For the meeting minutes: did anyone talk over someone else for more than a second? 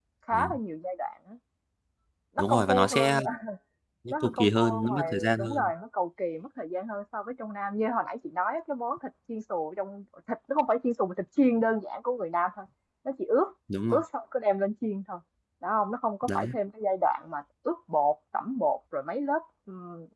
Yes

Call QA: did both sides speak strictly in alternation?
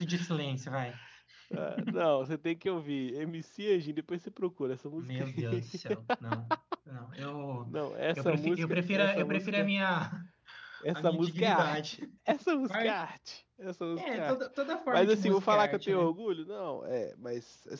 No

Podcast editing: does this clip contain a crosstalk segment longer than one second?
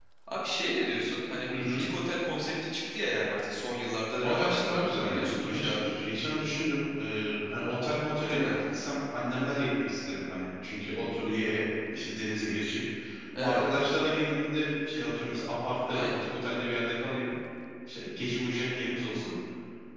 Yes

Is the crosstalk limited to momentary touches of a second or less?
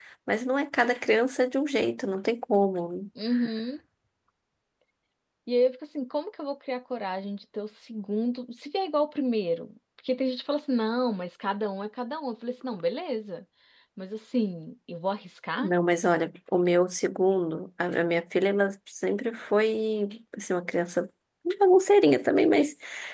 Yes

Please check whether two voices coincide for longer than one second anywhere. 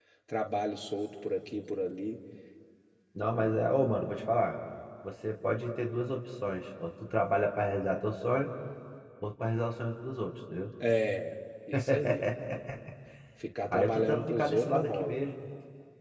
Yes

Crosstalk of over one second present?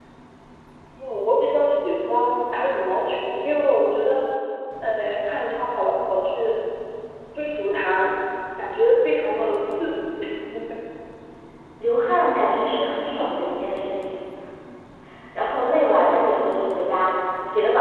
No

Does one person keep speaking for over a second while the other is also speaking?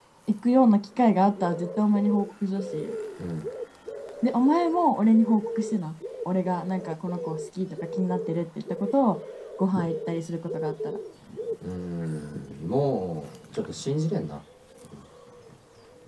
No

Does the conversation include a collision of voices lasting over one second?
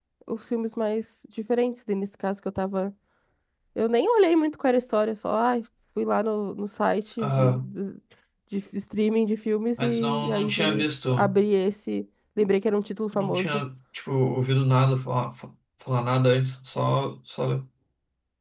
Yes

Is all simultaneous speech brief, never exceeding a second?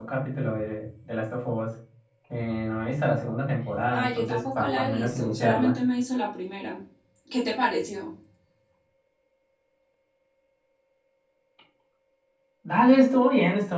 No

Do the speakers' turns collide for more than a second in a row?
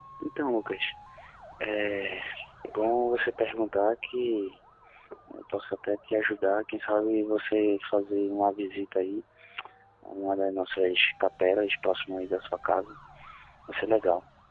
No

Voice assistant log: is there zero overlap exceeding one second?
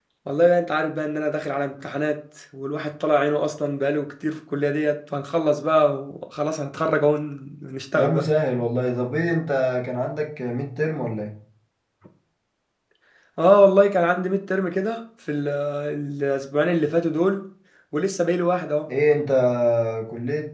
Yes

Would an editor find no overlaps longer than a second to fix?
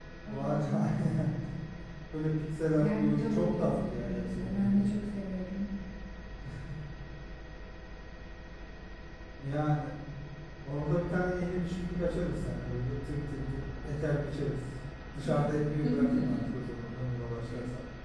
No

